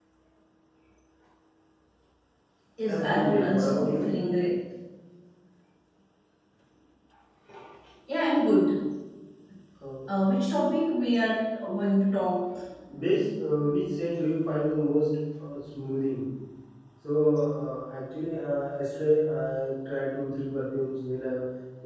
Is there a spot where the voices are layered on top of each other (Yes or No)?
Yes